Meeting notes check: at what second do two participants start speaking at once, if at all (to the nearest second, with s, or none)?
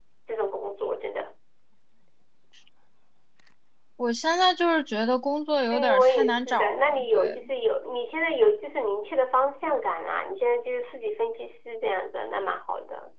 6 s